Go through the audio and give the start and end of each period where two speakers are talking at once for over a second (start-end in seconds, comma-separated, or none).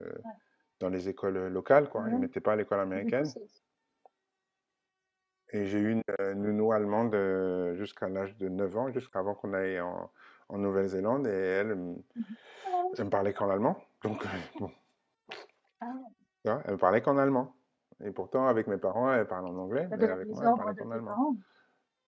19.9-21.2